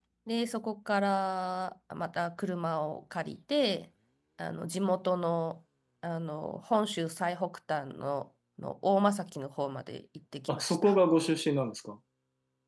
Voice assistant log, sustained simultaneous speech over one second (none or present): none